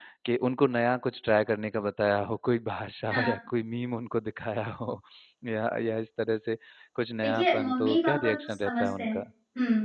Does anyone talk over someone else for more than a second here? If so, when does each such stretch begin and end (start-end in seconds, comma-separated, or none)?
7.2-9.2